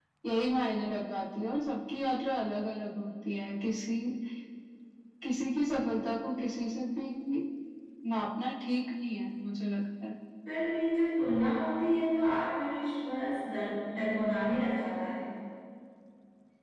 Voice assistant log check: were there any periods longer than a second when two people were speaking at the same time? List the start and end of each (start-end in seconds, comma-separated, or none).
none